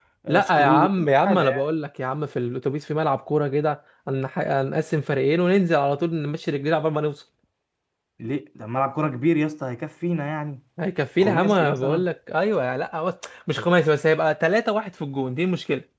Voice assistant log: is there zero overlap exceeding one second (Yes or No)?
No